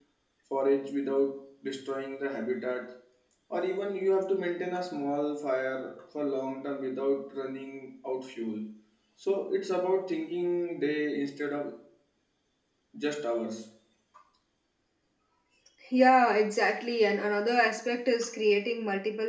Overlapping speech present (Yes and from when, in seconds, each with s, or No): No